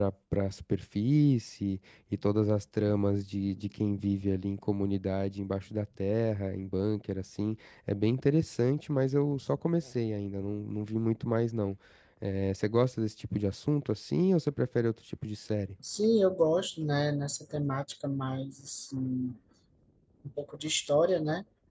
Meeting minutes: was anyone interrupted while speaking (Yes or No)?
No